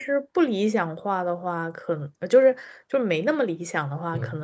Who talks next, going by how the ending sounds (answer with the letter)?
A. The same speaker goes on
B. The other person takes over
A